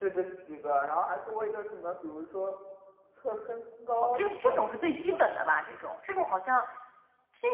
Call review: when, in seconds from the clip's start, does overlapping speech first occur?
4.0 s

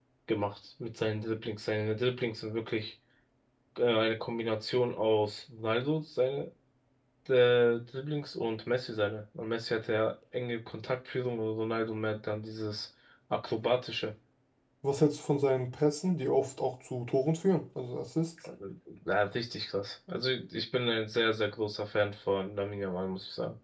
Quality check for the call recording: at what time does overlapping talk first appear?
none

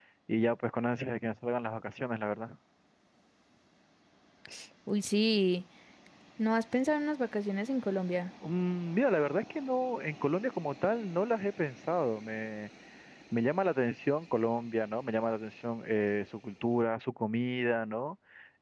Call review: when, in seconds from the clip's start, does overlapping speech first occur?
none

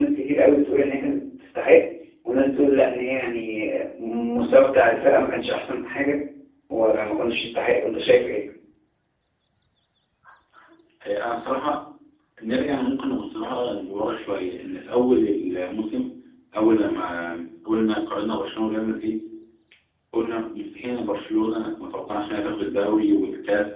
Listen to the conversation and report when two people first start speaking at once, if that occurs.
none

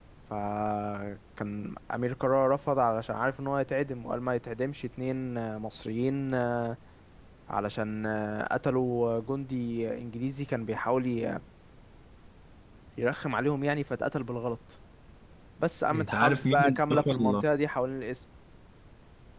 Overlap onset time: 15.9 s

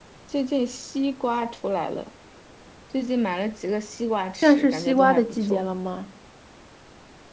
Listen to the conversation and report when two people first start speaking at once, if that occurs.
4.4 s

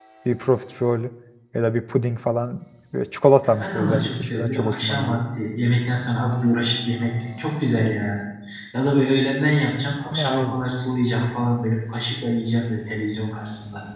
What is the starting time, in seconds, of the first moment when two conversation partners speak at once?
3.5 s

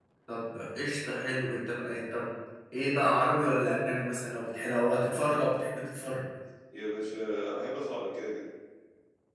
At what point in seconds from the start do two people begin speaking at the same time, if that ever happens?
none

